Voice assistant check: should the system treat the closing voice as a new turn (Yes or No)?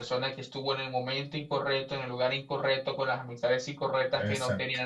No